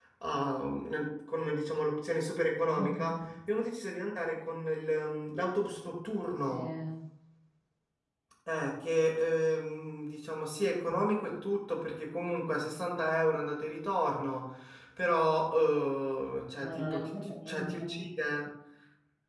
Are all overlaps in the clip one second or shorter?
No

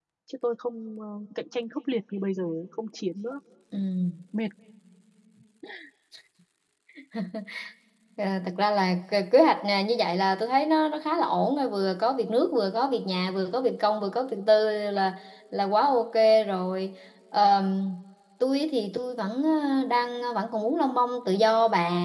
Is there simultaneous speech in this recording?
No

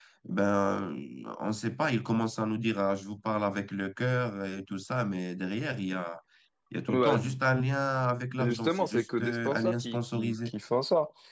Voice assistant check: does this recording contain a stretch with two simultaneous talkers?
Yes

